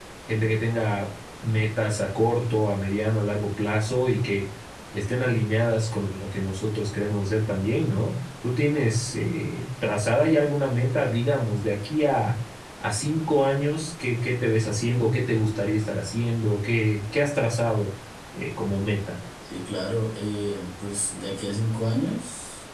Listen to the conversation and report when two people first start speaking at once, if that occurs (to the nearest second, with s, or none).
none